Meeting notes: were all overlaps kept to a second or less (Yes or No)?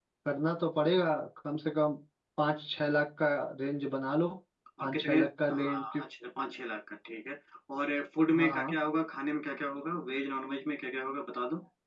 No